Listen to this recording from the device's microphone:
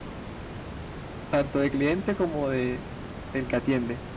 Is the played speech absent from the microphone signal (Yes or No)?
Yes